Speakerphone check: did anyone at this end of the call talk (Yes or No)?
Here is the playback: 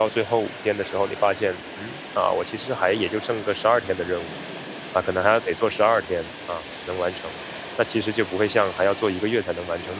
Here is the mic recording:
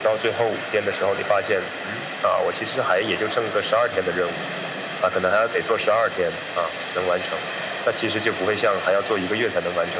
No